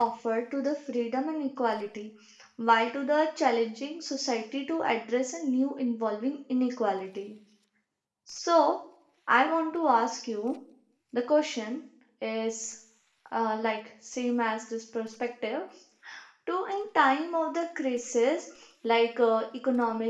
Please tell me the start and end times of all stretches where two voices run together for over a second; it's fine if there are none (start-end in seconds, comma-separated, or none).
none